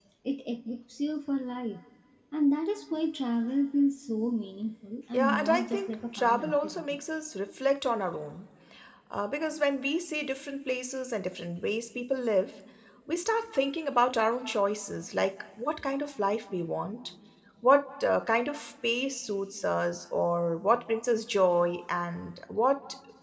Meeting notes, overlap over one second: present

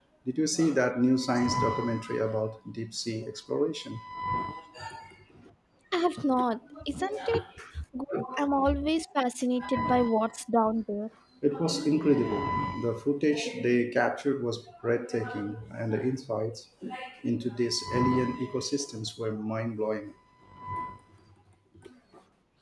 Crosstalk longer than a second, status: none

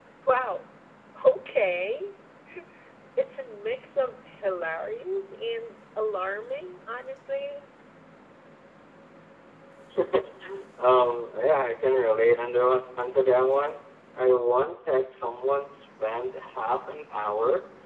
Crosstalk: none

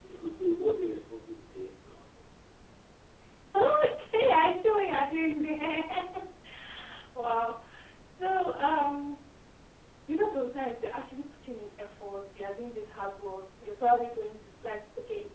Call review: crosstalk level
none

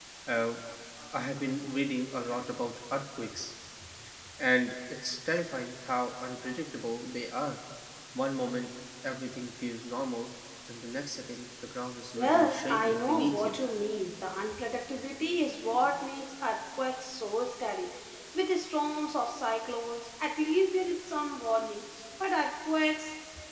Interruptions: present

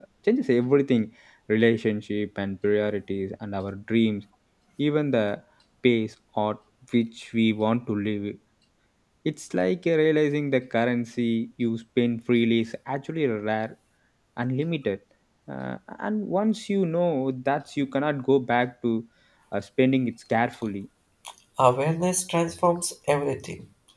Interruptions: none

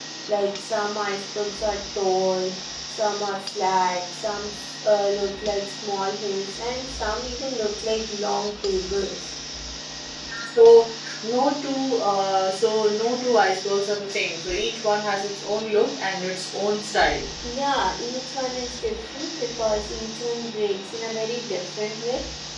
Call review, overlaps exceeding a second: none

